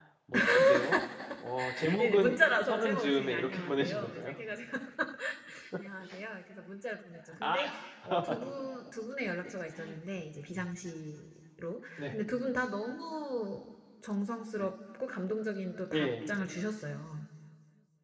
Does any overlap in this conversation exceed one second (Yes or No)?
Yes